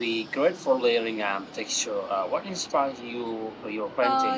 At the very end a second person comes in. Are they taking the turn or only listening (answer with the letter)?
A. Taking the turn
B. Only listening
A